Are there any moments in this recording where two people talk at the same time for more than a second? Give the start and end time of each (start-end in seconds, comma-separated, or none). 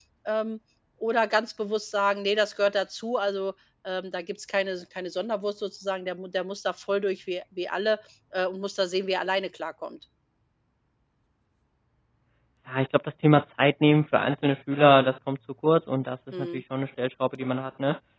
none